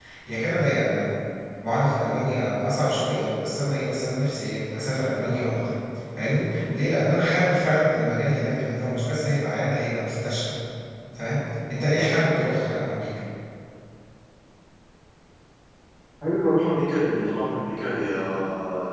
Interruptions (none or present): none